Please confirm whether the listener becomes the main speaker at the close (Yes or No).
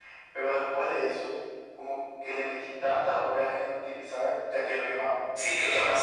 Yes